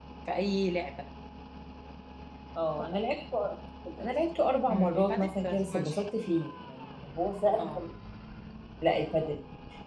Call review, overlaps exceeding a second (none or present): present